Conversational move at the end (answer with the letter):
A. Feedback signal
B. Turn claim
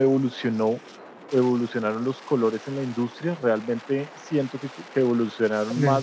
A